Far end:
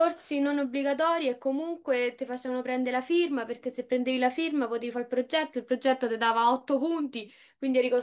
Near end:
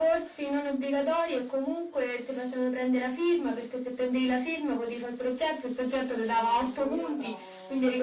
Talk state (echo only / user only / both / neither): both